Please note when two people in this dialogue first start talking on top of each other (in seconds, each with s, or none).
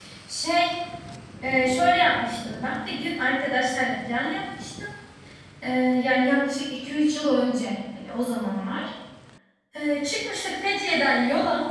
none